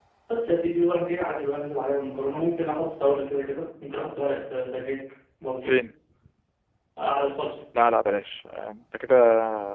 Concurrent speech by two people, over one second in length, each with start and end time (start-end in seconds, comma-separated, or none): none